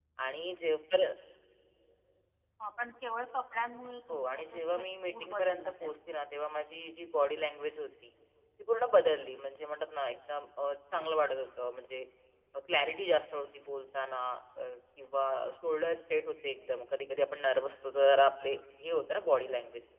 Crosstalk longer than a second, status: present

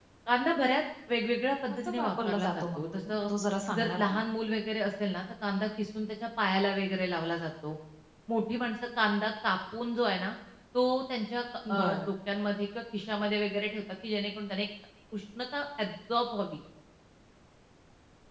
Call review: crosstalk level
present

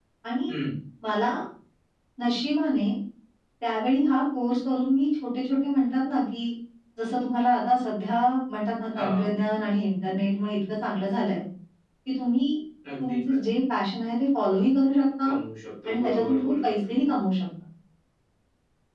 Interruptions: present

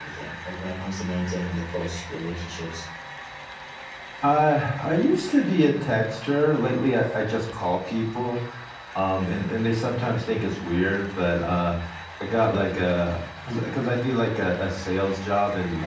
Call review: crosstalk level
none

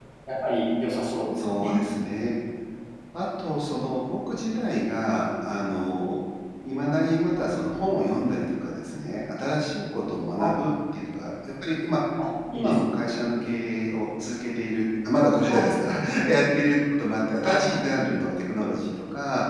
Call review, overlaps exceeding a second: none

